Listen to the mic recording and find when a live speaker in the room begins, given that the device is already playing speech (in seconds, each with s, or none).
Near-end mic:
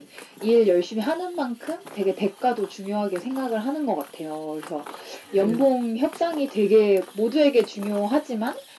5.3 s